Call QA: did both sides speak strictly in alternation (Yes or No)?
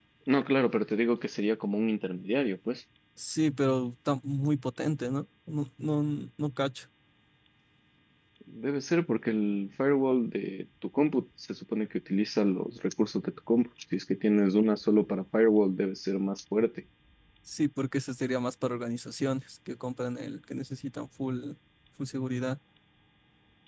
Yes